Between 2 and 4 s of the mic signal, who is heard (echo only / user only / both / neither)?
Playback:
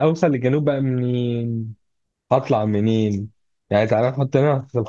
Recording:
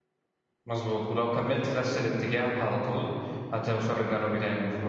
user only